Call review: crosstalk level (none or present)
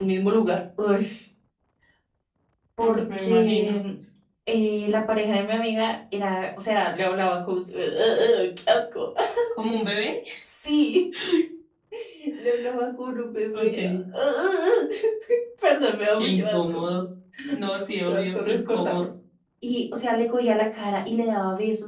present